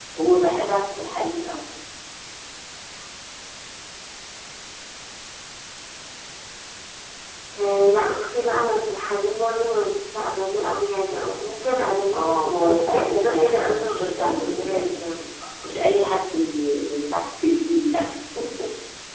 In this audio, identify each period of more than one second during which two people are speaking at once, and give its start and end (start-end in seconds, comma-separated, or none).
12.1-15.2